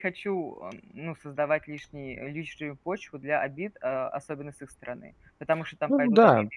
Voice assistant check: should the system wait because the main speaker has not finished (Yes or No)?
No